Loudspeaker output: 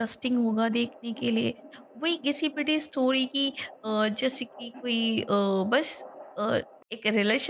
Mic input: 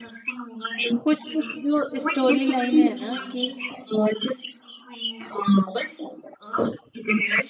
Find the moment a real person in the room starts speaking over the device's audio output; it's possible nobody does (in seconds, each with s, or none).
1.0 s